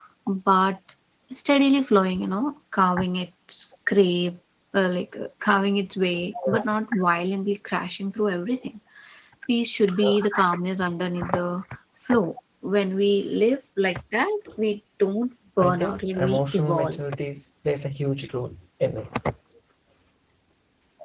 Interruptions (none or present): present